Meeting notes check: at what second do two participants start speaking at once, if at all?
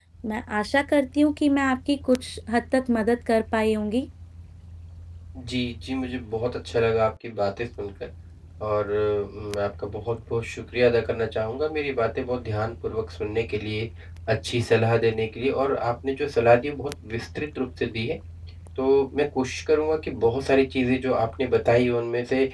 none

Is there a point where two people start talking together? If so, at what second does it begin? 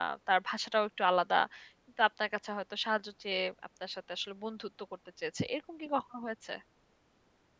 none

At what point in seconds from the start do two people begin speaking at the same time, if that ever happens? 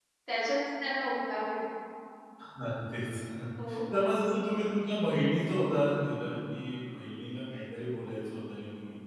none

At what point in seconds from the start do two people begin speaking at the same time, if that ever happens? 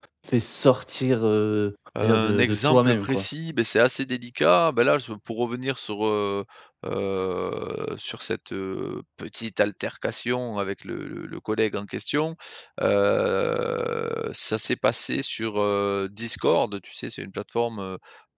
2 s

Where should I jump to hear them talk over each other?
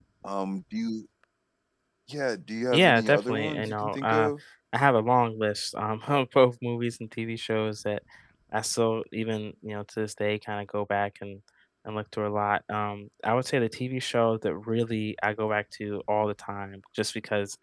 3 s

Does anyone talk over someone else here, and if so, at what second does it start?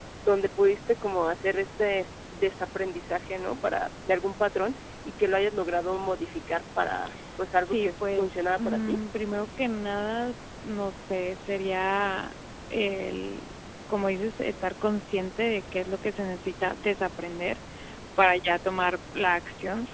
8 s

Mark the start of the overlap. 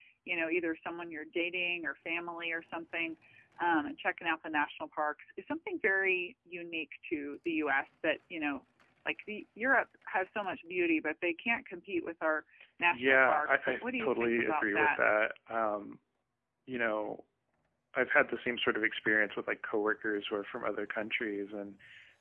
13 s

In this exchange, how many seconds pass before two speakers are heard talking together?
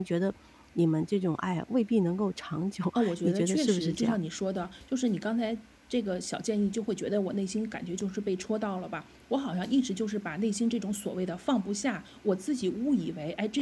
3 s

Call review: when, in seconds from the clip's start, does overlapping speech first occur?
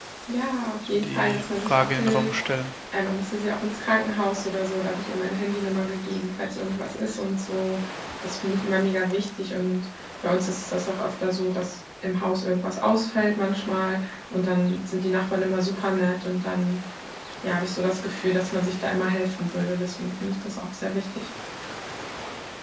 1 s

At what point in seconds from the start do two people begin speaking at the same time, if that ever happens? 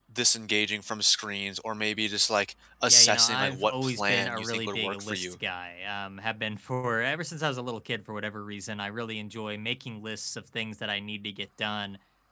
3 s

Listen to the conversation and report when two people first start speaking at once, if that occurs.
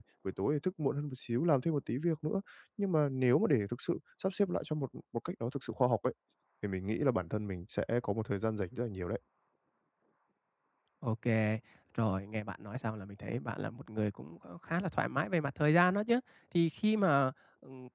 none

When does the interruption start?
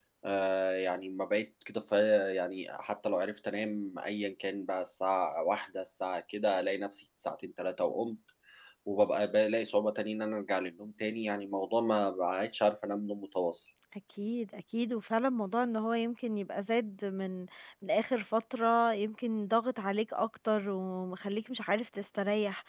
none

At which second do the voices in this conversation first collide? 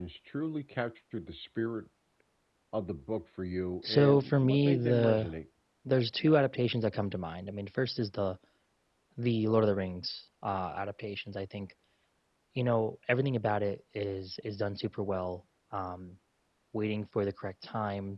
4 s

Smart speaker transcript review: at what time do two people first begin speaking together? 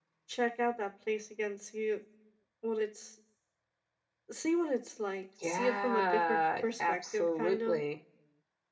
5 s

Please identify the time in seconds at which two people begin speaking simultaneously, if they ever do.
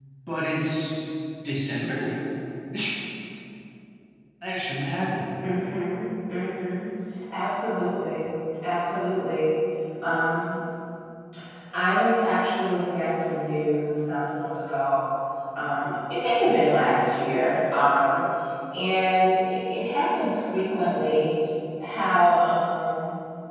none

